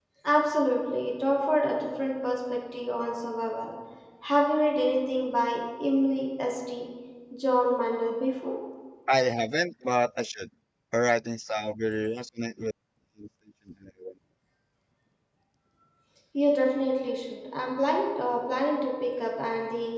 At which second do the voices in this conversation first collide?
none

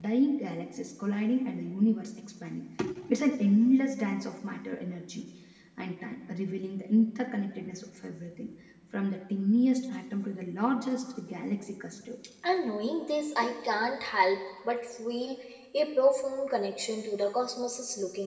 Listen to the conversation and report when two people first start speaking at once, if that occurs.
none

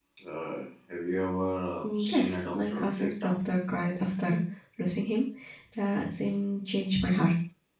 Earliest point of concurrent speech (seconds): 1.8 s

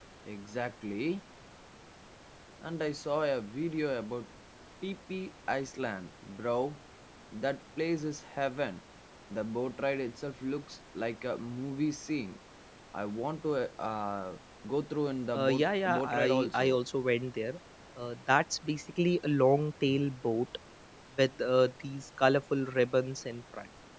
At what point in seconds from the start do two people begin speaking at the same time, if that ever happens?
15.3 s

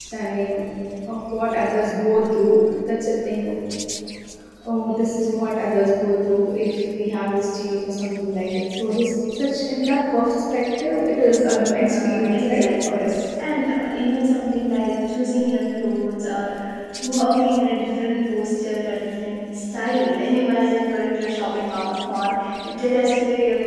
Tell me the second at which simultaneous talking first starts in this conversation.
11.8 s

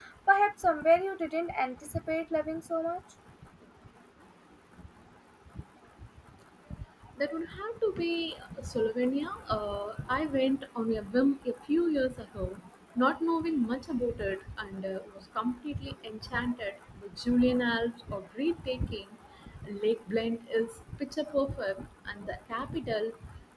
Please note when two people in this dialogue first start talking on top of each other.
none

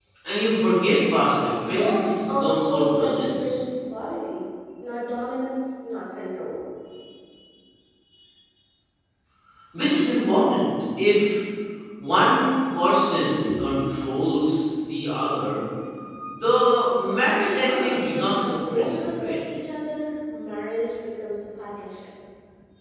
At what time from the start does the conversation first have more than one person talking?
1.6 s

